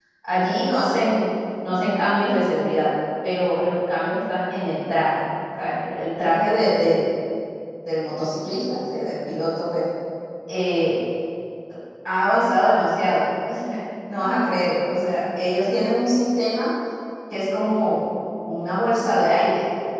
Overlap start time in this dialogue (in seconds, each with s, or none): none